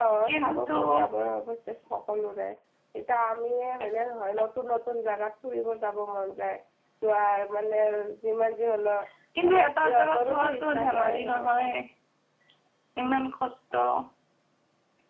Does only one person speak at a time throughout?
No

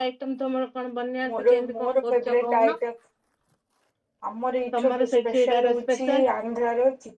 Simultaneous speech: Yes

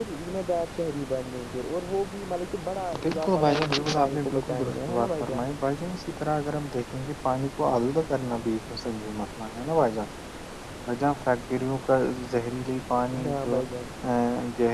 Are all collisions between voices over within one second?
No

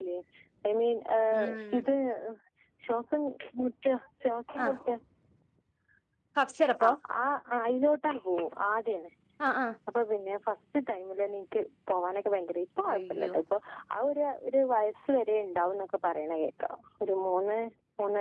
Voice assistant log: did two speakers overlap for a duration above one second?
No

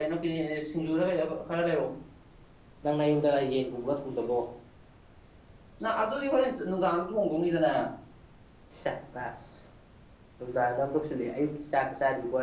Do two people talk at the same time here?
No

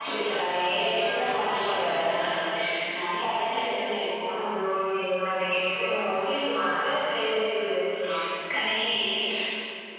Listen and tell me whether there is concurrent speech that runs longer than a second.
Yes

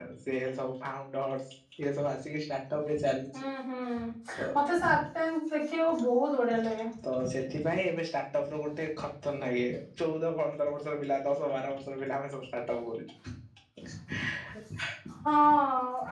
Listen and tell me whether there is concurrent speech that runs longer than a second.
No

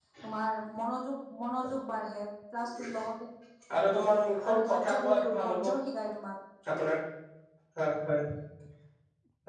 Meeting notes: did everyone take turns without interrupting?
No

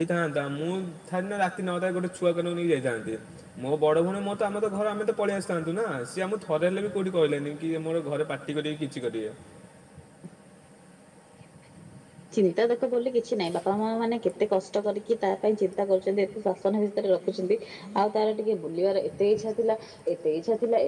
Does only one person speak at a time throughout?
Yes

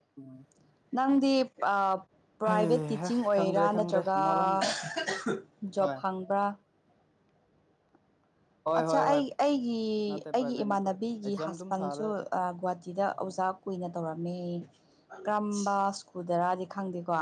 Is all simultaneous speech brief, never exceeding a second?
No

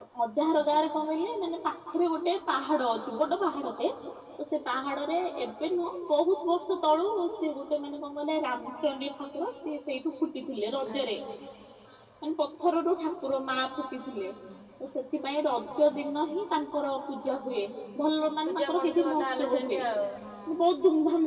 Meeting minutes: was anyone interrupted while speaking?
Yes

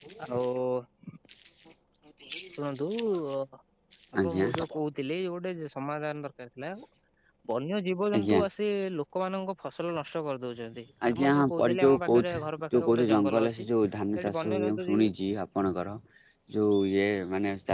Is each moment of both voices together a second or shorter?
No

